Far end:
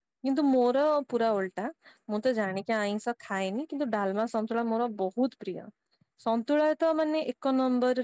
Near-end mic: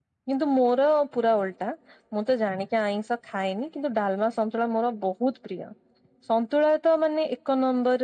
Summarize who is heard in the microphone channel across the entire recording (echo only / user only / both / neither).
echo only